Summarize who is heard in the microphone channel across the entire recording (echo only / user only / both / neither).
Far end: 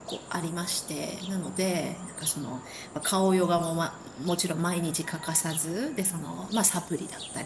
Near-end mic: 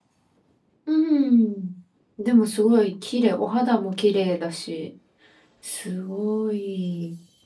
user only